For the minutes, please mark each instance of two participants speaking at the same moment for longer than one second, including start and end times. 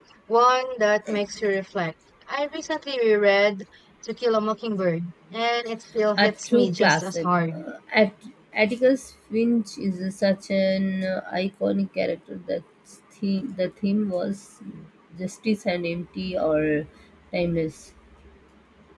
6.2-7.6

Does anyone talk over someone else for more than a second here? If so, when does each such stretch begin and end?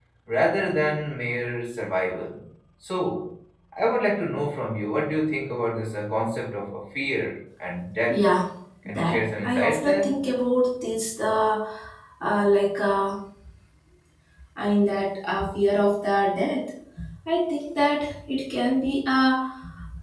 8.9-10.2

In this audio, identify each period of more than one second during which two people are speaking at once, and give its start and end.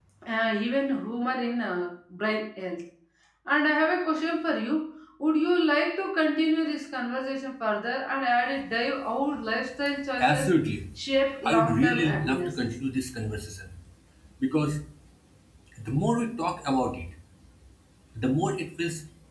11.4-12.7

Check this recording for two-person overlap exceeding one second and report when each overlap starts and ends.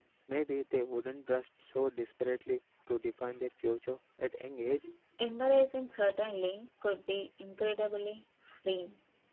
none

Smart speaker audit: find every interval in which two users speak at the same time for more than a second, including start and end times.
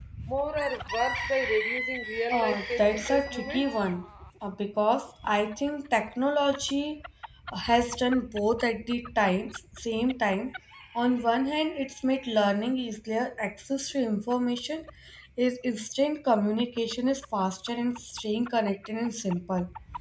2.3-3.7

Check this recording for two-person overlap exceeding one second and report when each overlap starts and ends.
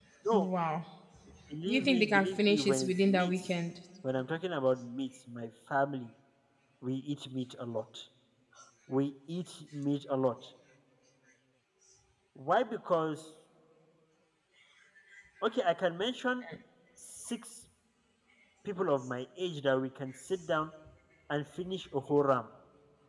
1.7-3.4

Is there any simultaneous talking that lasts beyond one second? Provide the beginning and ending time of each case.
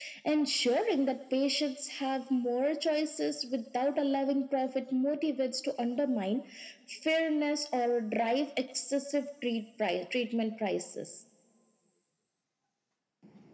none

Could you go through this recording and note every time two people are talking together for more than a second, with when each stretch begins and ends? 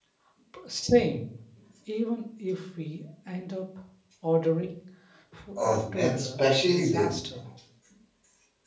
5.6-7.2

